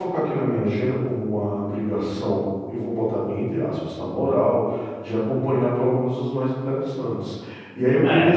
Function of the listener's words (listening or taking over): listening